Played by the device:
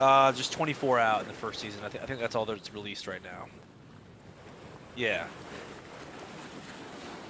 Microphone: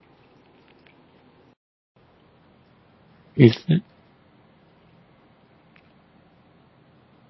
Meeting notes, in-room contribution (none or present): present